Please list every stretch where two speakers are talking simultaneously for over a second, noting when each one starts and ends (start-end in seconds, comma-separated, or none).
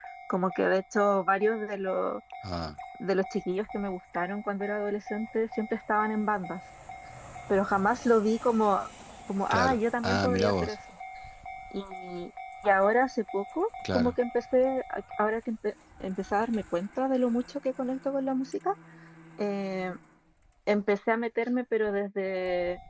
9.5-10.8